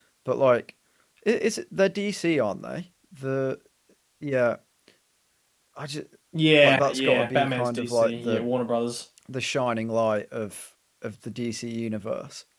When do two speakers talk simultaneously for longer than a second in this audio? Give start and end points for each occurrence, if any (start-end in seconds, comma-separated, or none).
6.6-8.4